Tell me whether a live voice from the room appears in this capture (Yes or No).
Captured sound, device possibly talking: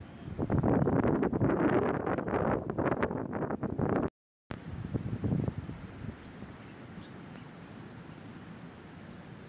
No